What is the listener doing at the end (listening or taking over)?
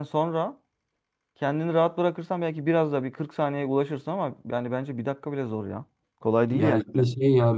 taking over